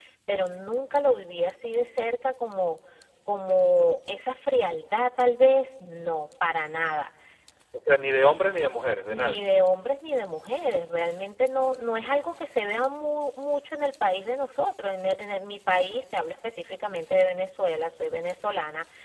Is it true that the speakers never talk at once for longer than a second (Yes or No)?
Yes